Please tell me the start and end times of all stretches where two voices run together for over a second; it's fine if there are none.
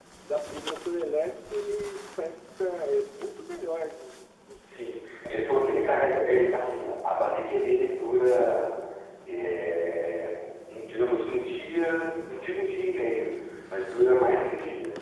4.7-6.0

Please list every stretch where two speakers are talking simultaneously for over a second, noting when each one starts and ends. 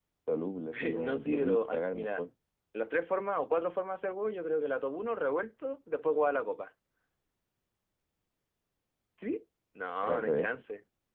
0.7-2.3

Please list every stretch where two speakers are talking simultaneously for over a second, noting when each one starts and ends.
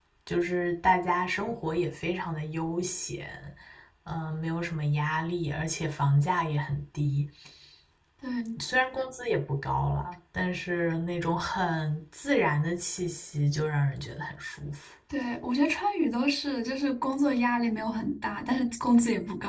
none

